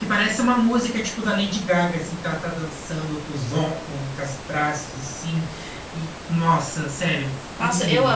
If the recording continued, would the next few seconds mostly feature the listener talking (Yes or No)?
Yes